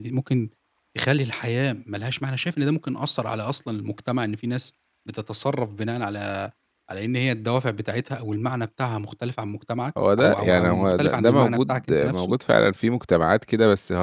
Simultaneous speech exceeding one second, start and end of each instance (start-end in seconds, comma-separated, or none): 10.2-12.3